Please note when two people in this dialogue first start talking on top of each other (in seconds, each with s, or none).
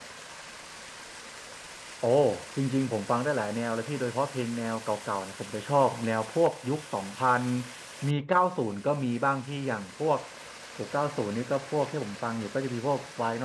none